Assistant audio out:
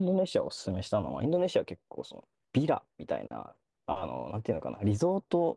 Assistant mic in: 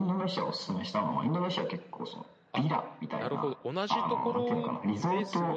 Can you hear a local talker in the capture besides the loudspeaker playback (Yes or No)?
Yes